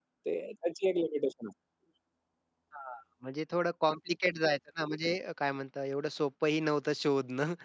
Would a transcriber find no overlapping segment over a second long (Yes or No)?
Yes